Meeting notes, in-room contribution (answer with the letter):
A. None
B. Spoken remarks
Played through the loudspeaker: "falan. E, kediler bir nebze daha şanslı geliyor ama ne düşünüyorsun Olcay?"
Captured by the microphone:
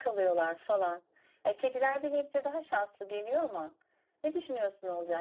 A